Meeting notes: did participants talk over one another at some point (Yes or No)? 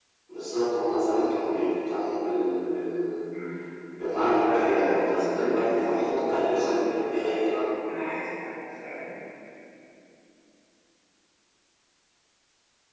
Yes